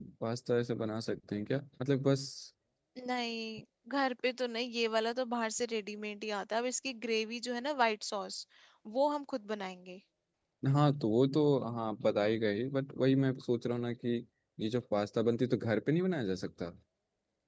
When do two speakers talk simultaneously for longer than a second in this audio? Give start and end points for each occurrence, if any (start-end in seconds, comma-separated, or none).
none